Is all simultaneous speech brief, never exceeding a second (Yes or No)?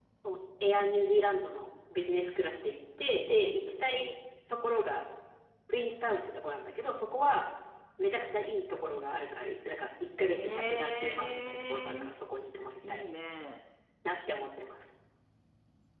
No